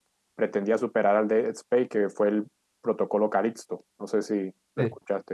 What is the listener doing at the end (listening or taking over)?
taking over